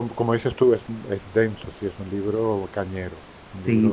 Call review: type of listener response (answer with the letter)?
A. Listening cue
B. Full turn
B